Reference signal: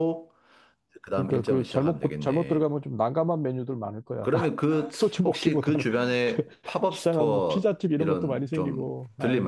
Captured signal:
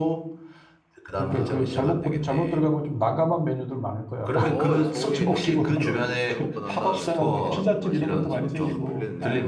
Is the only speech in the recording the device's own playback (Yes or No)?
No